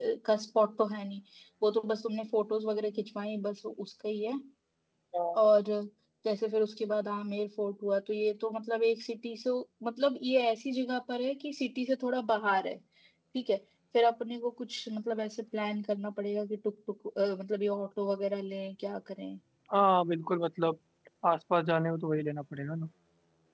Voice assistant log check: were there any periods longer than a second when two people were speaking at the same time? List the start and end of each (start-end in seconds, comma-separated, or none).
none